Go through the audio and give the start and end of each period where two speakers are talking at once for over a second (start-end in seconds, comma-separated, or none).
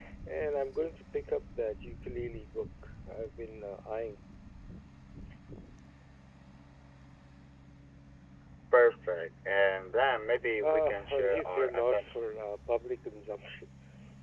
10.6-12.3